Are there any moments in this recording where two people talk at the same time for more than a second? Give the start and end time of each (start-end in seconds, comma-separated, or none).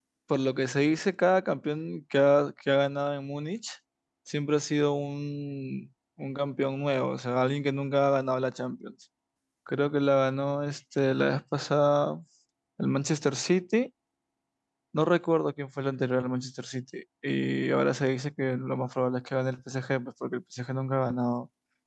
none